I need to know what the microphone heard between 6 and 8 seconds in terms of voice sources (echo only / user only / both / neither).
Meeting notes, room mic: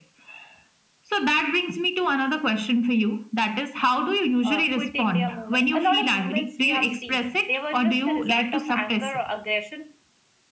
both